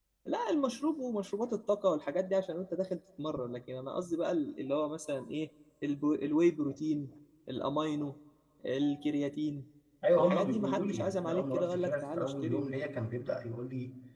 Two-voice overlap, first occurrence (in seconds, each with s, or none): 10.2 s